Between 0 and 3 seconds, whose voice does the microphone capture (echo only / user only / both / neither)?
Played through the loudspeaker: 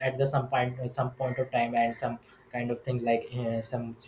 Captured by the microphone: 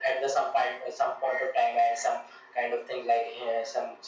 echo only